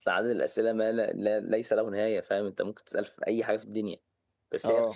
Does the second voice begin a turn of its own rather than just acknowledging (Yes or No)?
No